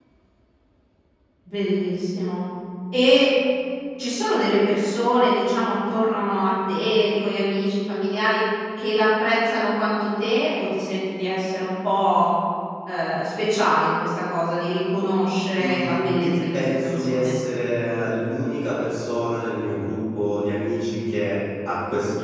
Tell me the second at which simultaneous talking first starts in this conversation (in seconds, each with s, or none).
15.6 s